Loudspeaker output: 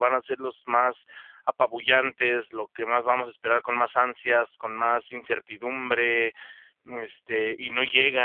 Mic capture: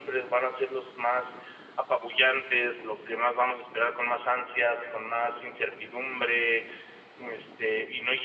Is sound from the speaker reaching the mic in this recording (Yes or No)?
Yes